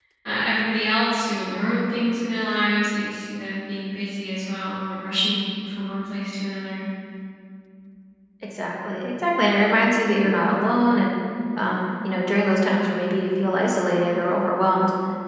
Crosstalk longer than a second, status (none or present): none